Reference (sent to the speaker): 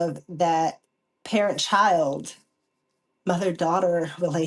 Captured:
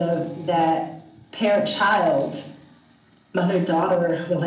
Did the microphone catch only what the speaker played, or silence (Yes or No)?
Yes